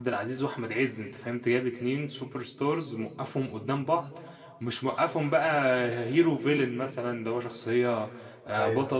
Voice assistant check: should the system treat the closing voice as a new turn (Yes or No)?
No